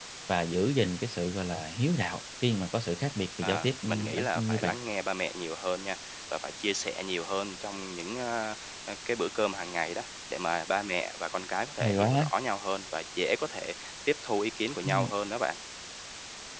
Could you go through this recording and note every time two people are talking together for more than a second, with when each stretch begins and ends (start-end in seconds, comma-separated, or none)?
3.4-4.7